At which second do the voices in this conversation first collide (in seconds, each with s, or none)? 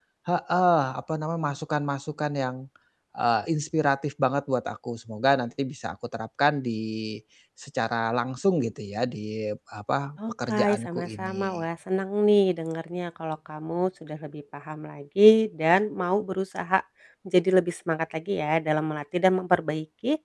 10.2 s